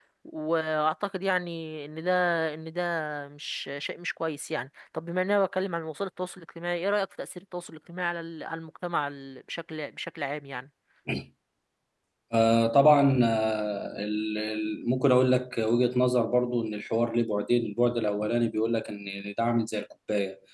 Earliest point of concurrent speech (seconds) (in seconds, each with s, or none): none